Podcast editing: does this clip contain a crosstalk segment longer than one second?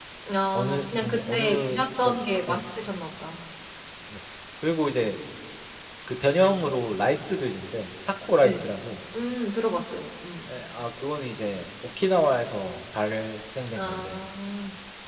Yes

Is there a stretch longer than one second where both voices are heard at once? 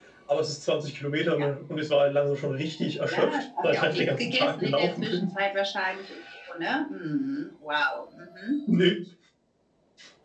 Yes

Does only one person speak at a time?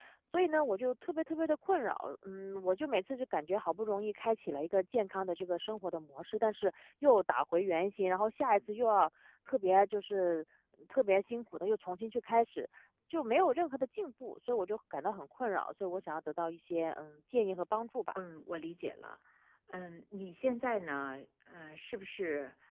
Yes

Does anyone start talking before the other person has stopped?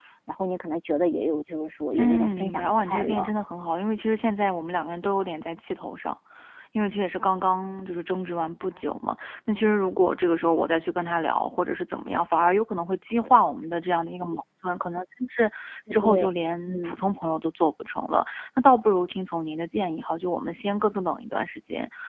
Yes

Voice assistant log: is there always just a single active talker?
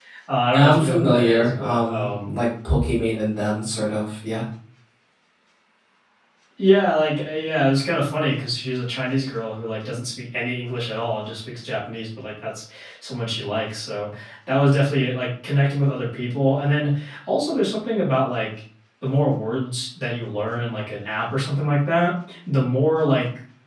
No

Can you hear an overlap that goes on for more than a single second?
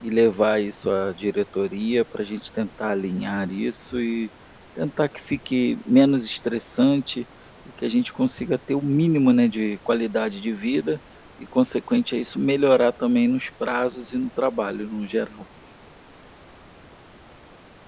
No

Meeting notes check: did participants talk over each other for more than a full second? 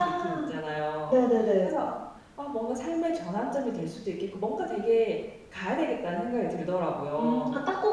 No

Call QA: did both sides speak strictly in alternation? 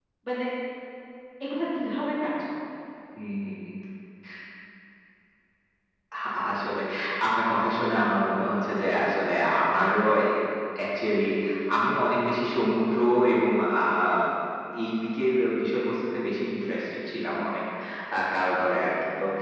Yes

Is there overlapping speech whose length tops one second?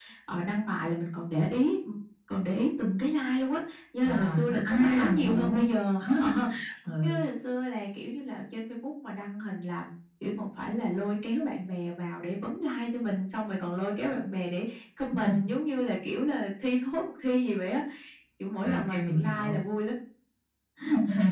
Yes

